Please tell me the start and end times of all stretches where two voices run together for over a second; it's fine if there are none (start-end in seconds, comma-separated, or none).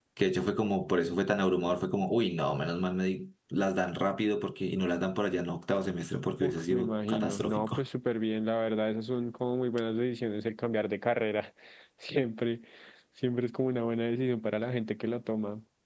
6.4-7.8